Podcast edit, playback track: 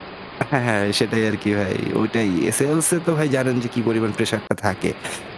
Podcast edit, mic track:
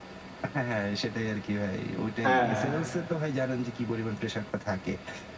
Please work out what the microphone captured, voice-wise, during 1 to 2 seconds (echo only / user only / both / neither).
echo only